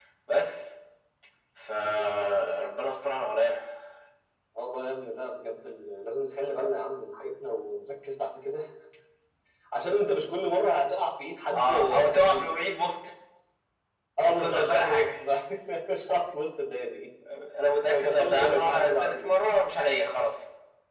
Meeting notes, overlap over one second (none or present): present